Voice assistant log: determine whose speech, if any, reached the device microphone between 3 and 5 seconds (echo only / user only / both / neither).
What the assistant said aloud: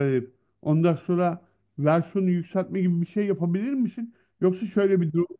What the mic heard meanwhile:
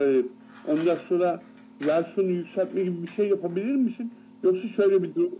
echo only